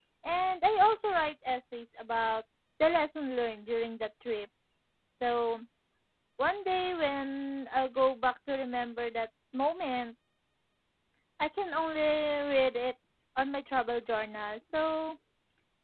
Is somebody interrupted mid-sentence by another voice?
No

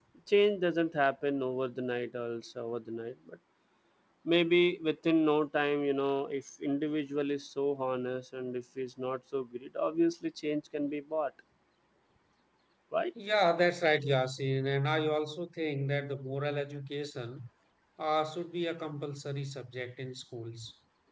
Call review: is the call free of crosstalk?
Yes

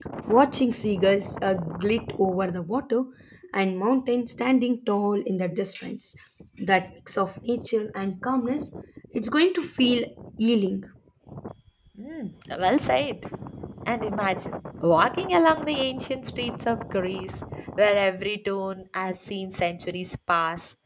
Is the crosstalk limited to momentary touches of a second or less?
Yes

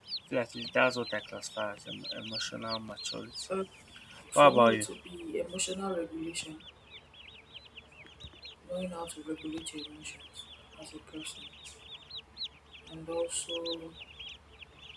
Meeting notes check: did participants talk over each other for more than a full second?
No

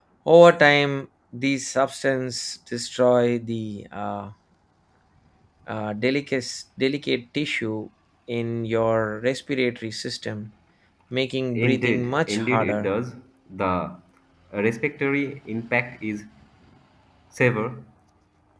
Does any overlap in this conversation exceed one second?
Yes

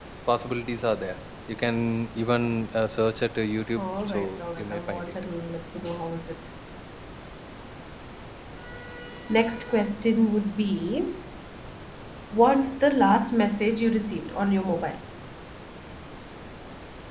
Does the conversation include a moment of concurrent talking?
Yes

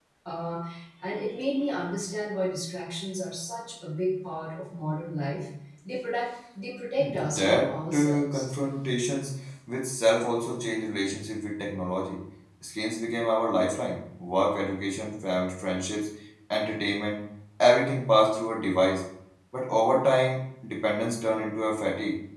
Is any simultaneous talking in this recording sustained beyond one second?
Yes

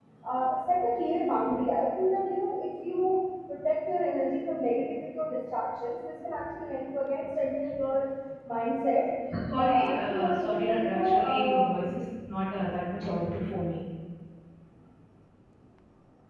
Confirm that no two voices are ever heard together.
No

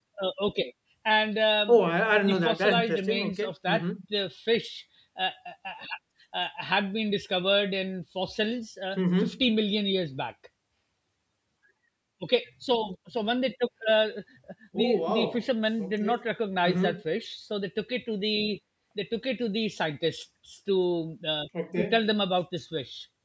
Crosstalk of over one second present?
Yes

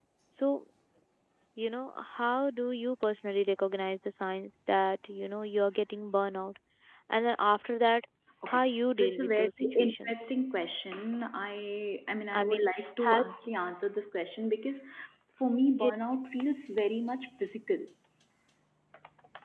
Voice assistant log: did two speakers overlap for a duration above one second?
Yes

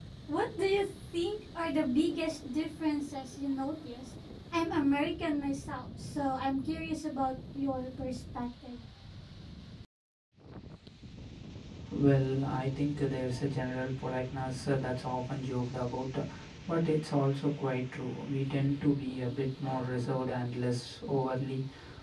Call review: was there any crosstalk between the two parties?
No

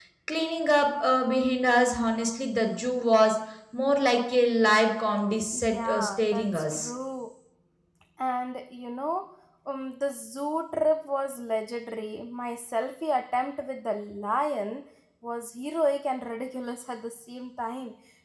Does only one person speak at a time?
No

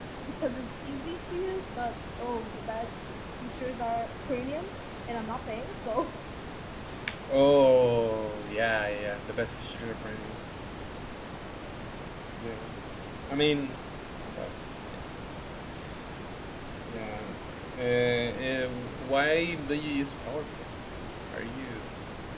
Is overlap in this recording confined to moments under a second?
Yes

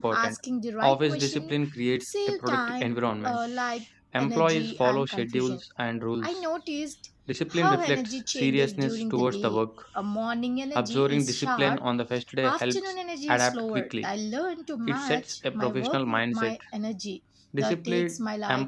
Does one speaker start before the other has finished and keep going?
Yes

